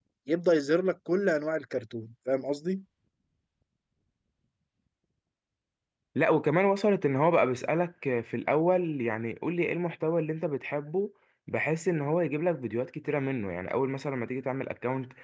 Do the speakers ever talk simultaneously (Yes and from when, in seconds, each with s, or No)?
No